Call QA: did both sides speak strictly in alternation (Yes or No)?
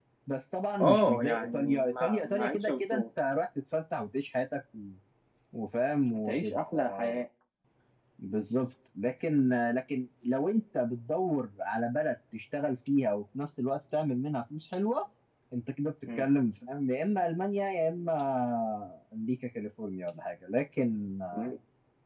No